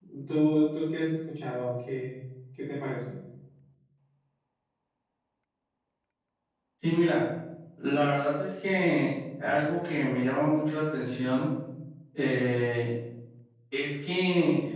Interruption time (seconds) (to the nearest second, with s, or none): none